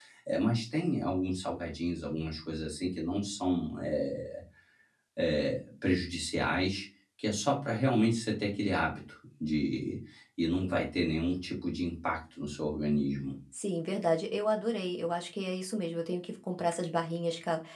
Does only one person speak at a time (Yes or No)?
Yes